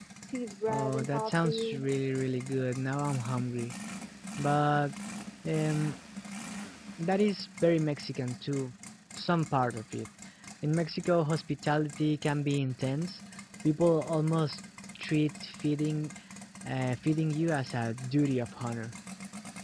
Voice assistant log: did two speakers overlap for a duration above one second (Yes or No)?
Yes